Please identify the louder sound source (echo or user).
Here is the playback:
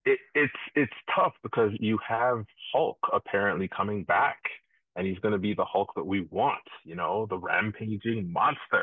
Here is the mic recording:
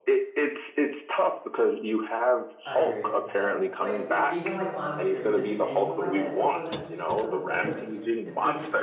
echo